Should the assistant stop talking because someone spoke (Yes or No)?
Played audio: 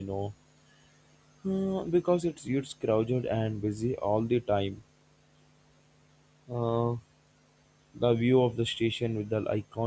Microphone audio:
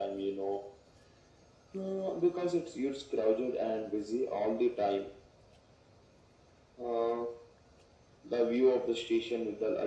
No